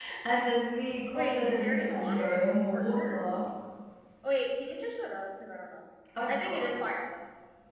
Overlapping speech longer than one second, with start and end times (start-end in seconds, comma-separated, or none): 1.1-3.3